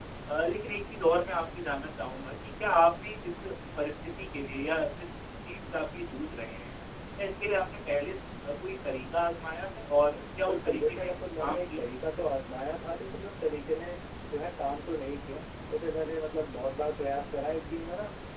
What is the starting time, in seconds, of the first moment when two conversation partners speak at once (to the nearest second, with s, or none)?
10 s